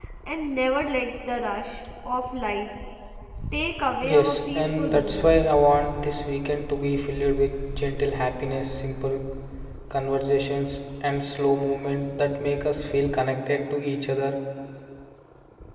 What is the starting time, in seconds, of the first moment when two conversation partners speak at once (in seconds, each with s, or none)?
4.0 s